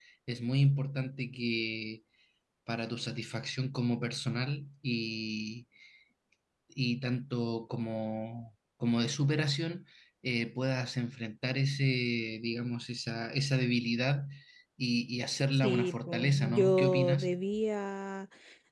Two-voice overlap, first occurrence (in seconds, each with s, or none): 15.6 s